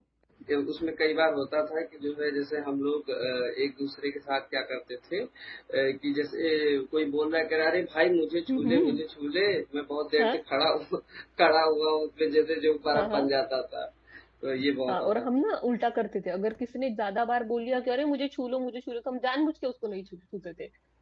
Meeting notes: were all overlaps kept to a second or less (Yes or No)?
Yes